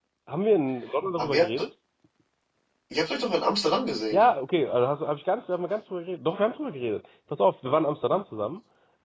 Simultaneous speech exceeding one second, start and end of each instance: none

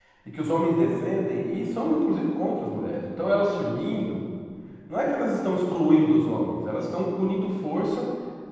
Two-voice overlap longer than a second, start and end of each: none

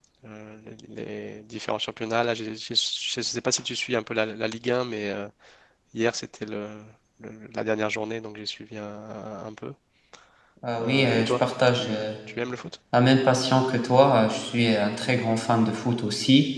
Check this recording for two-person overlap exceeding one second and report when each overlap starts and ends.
10.8-12.1

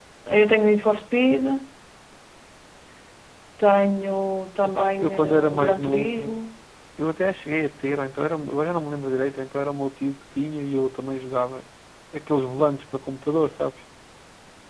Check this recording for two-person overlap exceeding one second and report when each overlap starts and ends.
4.6-6.5

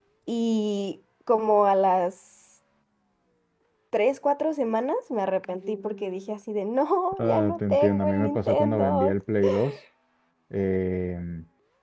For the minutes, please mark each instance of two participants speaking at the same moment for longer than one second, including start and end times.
7.2-9.2

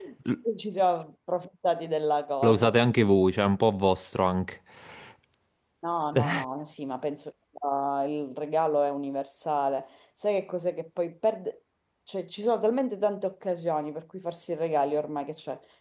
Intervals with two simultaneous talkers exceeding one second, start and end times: none

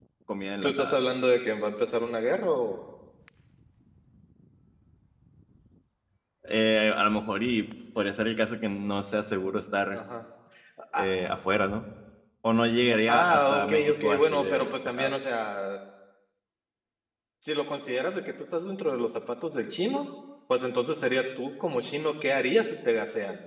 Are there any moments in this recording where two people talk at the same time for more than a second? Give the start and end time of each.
13.1-15.1

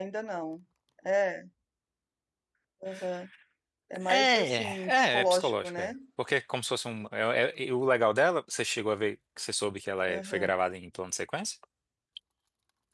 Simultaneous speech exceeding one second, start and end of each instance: 4.1-5.9

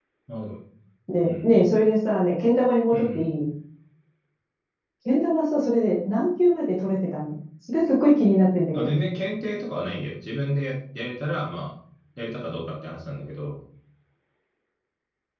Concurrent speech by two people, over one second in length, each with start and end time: none

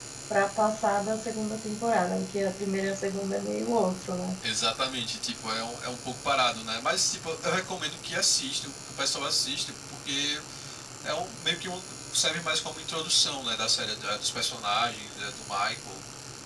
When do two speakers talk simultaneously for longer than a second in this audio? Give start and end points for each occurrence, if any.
none

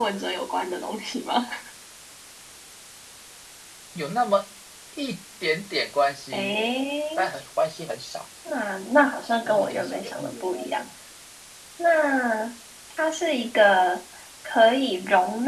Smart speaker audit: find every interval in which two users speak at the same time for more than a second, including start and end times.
9.4-10.7

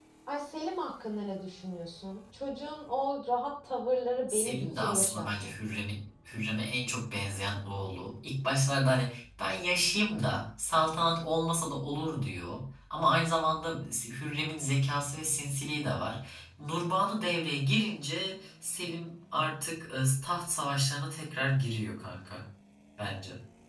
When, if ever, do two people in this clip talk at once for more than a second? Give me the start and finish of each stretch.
4.3-5.5

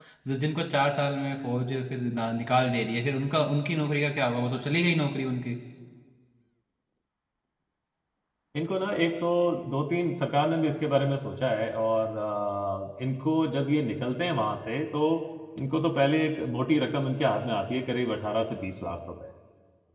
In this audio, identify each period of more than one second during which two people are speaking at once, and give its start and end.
none

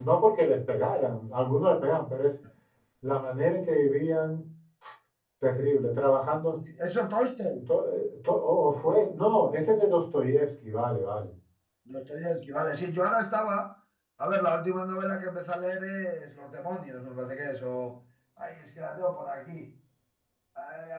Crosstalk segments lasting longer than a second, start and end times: none

